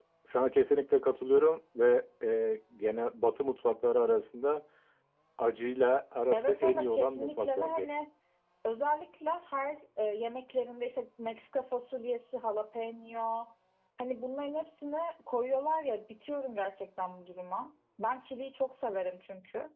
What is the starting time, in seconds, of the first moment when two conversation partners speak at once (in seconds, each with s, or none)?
6.3 s